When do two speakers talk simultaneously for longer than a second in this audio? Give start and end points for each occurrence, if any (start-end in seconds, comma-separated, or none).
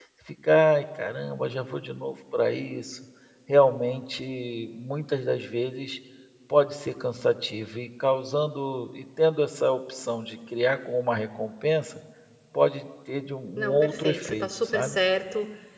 13.6-15.0